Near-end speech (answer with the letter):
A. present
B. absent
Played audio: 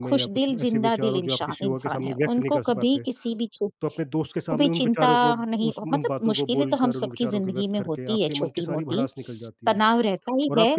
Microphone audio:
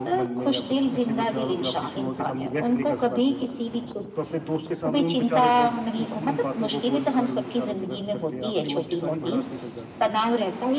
B